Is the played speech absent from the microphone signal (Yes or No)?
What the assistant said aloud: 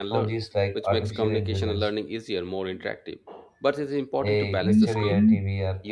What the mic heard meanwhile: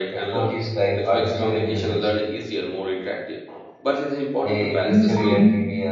No